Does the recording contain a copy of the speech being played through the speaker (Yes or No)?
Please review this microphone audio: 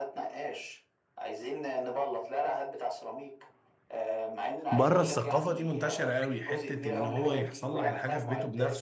Yes